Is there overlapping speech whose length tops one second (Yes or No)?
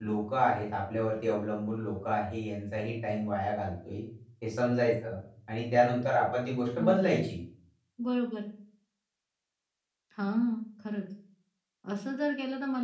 No